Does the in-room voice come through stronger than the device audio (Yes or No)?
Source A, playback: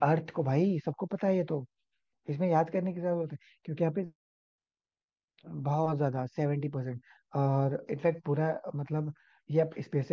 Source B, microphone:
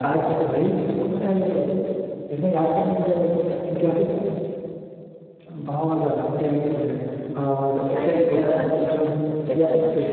No